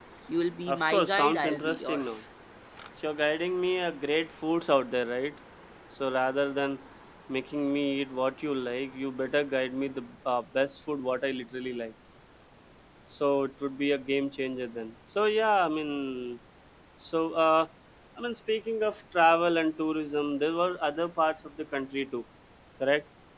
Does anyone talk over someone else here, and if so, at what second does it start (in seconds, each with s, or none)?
0.7 s